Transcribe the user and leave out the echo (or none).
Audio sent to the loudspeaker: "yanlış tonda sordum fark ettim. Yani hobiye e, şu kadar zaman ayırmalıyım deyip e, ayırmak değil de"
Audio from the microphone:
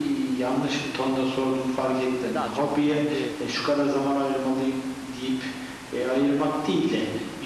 Hani daha çok kendi e,